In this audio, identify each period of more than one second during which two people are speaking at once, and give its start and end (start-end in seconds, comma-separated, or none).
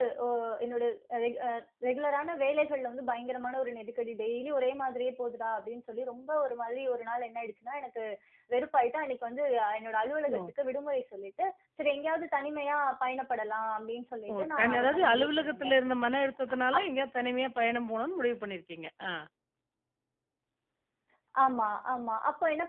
14.3-15.7